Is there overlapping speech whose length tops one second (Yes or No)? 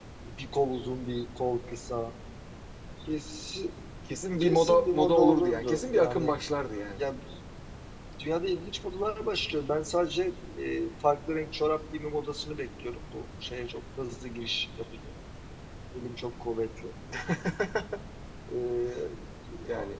Yes